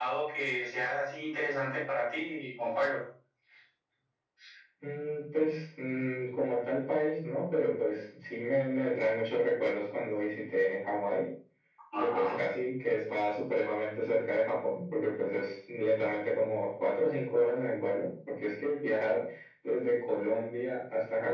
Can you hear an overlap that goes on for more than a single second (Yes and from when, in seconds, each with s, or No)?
No